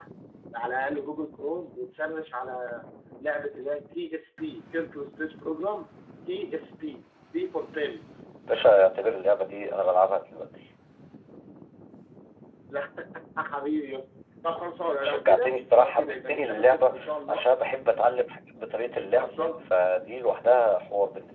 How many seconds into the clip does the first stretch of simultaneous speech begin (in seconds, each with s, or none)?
15.0 s